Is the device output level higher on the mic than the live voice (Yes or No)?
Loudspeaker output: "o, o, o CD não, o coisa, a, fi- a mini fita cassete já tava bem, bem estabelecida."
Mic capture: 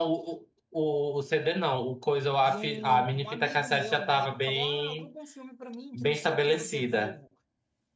Yes